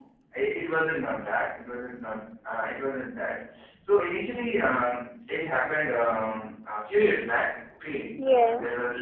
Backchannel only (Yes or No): Yes